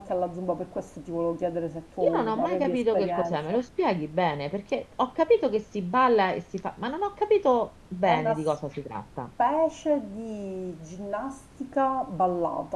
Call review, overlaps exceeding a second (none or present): present